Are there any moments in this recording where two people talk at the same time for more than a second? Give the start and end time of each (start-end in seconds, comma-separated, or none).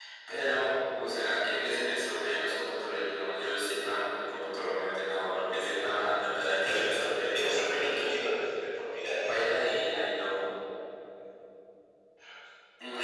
6.6-8.2